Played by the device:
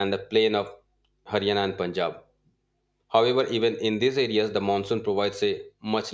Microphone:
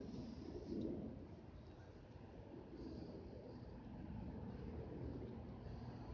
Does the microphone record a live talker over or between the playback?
No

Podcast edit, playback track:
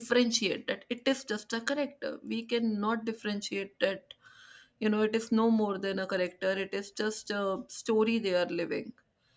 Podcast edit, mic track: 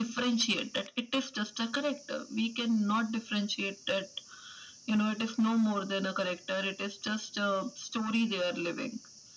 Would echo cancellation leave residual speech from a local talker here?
No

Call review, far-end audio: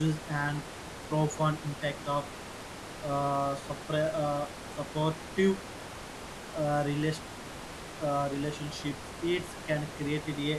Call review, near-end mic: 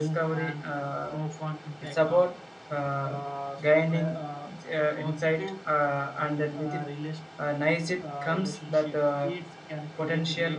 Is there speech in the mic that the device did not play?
Yes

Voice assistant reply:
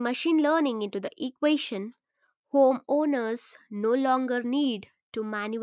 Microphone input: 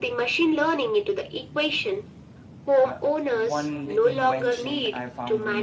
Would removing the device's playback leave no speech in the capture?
No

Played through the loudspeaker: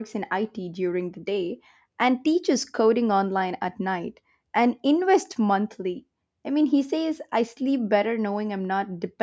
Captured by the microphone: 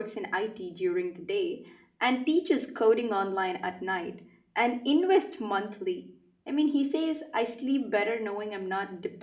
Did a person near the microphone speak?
No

